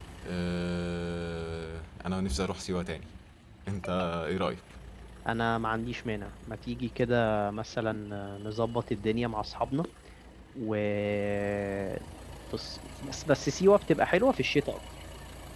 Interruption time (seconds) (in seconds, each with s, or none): none